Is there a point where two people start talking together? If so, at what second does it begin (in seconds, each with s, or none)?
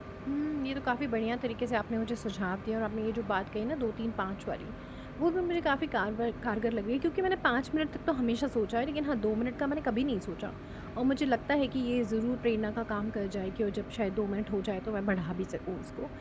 none